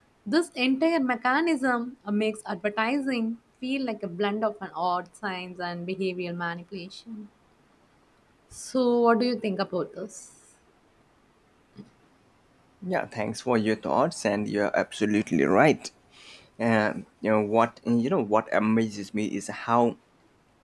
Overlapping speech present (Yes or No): No